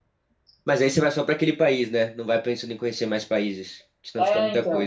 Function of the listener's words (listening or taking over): taking over